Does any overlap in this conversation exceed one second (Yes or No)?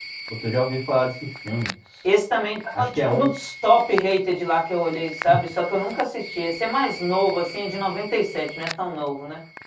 No